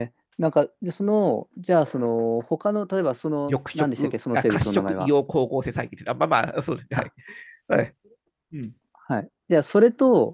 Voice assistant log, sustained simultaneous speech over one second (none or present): present